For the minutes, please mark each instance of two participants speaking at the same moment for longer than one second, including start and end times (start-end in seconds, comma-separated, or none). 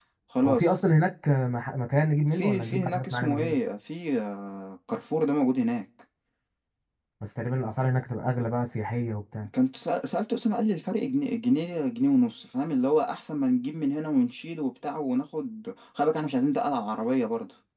2.3-3.6